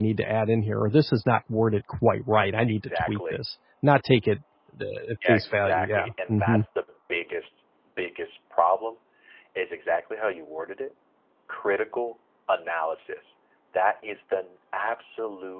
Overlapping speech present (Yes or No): Yes